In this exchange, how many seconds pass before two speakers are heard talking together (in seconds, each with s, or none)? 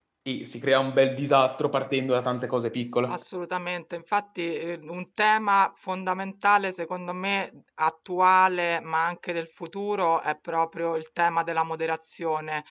none